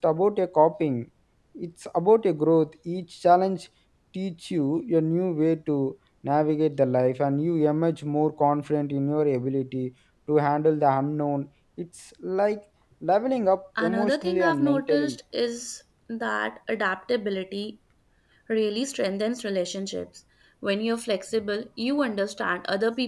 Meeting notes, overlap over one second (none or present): present